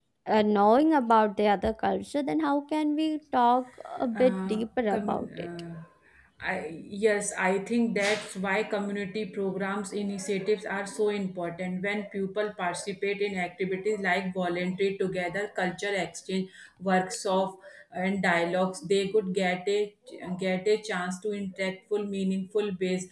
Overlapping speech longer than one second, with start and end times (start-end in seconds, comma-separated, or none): 4.2-5.5